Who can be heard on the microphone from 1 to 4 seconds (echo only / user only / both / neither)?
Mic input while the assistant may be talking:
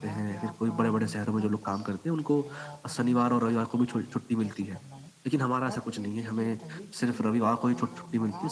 both